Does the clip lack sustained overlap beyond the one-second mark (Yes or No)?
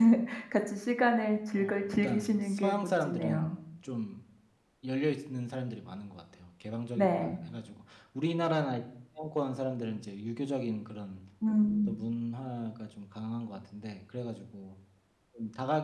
No